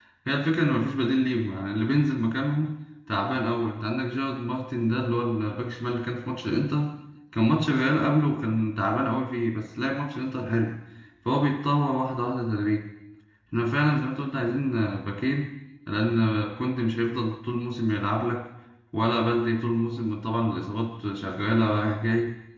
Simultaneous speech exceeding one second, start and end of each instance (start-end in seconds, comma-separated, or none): none